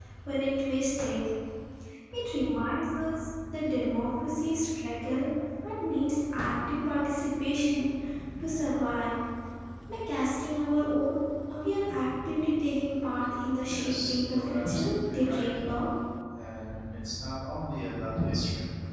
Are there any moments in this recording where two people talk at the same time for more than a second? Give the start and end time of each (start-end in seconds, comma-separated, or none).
13.6-15.6